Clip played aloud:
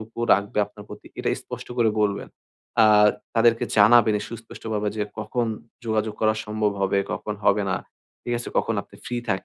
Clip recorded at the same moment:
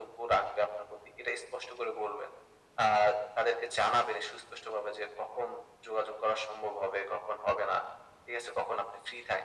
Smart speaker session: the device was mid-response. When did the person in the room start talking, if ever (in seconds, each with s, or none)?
none